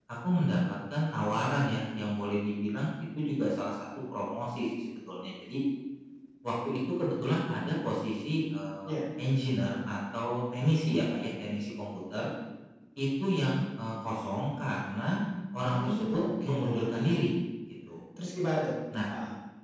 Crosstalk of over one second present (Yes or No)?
Yes